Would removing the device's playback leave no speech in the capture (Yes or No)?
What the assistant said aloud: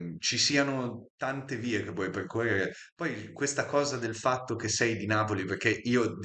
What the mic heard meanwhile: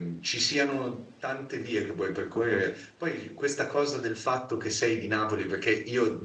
No